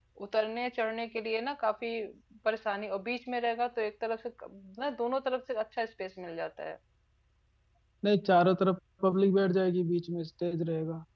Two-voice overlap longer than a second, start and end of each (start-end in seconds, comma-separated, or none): none